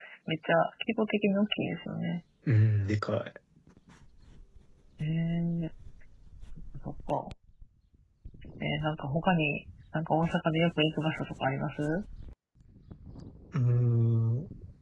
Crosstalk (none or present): none